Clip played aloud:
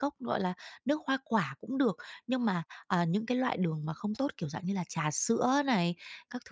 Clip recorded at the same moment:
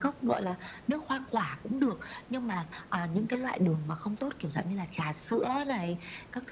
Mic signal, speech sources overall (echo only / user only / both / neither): echo only